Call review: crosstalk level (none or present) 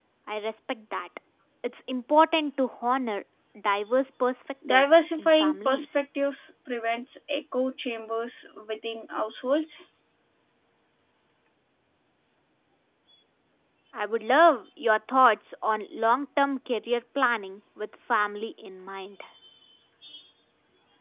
present